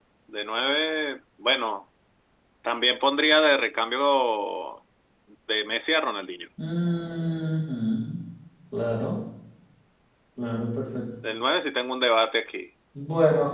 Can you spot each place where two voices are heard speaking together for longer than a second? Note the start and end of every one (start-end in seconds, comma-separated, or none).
none